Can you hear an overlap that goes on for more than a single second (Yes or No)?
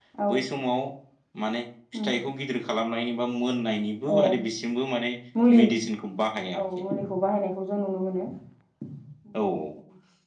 No